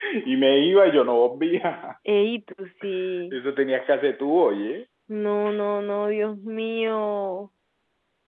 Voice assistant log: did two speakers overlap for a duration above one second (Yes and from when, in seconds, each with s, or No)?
No